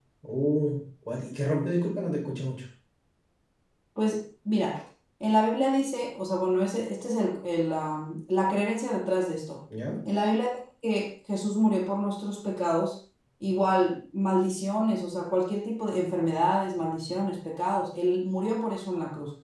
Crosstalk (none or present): none